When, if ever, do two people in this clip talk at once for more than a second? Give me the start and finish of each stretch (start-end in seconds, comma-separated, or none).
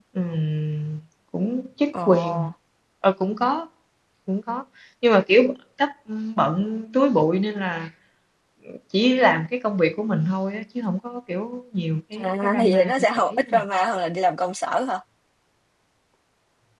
12.2-13.6